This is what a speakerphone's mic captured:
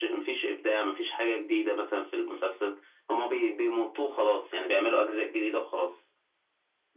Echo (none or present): present